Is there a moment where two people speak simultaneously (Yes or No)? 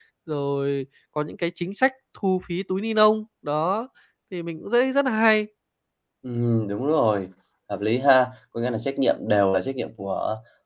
No